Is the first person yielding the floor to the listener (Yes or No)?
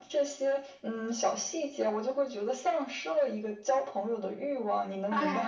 Yes